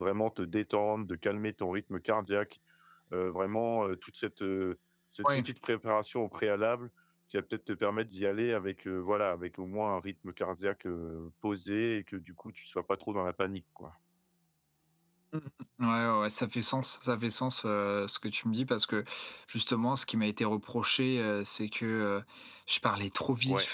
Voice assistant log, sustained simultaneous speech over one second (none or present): none